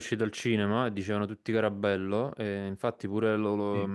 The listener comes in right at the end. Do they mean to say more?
No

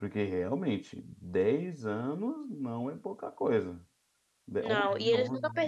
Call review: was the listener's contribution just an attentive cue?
No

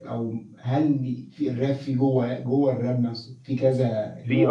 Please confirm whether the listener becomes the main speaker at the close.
Yes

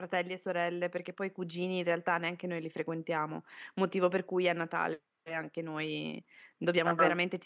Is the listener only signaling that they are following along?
Yes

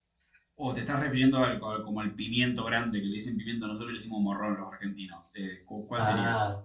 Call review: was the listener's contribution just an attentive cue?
No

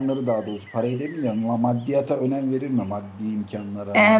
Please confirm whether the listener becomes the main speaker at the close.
Yes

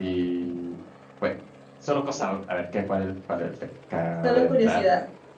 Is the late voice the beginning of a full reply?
No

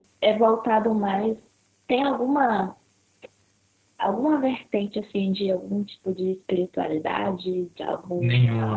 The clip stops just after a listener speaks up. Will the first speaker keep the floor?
No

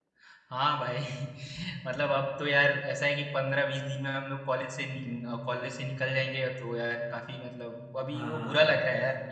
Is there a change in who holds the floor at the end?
No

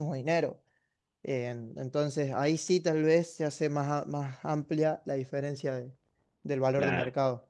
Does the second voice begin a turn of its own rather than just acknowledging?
Yes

